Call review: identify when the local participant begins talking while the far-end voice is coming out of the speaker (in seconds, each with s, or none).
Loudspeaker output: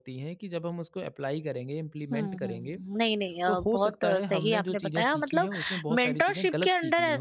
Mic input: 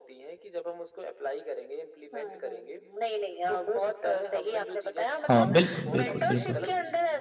5.3 s